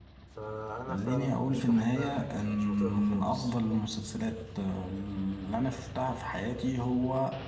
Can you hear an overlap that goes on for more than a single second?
Yes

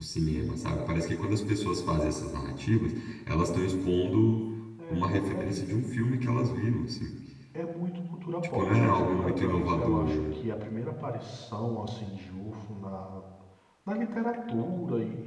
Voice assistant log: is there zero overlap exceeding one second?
No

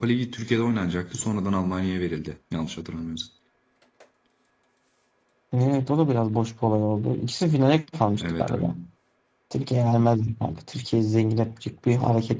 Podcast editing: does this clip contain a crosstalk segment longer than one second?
No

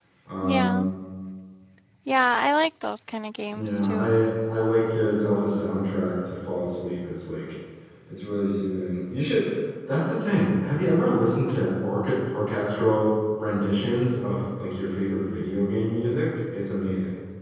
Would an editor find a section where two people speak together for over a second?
No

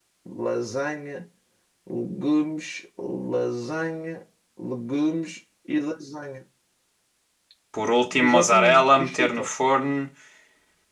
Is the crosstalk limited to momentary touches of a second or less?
No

